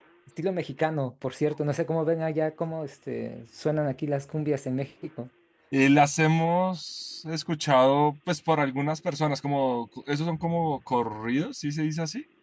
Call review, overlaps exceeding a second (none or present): none